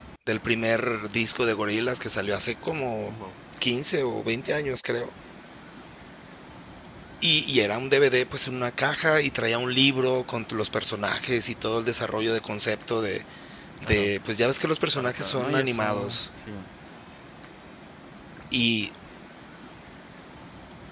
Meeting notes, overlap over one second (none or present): present